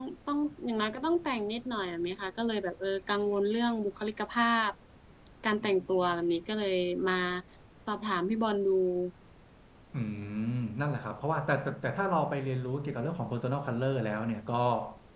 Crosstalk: none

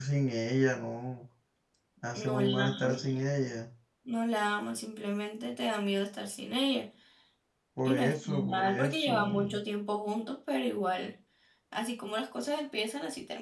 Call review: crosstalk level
present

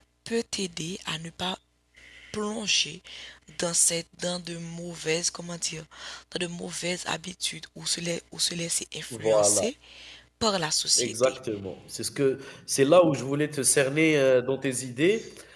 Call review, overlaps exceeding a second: none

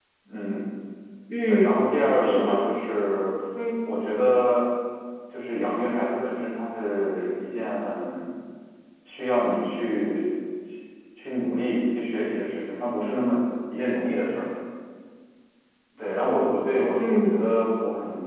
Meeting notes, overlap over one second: none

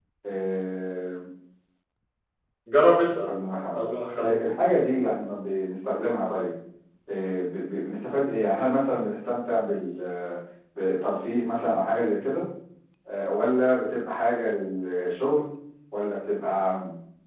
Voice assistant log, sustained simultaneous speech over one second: none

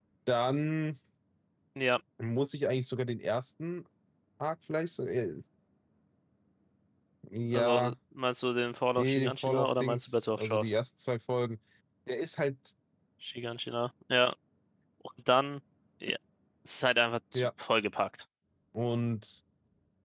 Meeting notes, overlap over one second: present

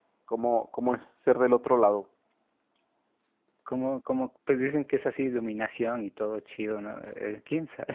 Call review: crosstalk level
none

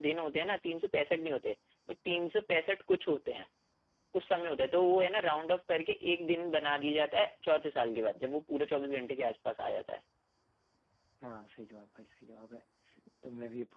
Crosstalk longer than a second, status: none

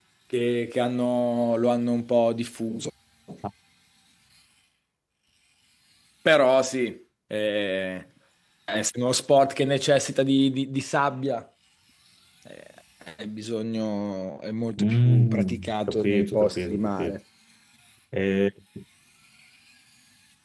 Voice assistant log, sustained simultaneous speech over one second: present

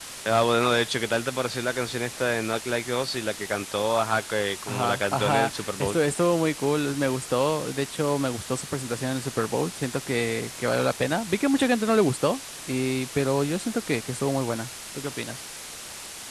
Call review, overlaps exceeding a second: present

